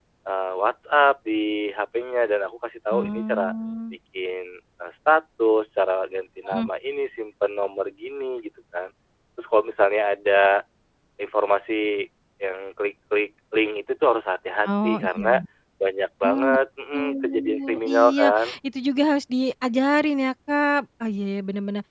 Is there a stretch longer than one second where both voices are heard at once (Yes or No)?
Yes